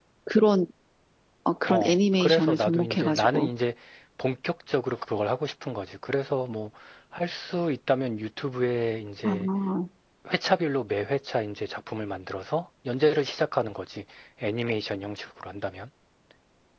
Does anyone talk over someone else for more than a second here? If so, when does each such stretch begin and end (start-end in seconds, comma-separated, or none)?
1.7-3.5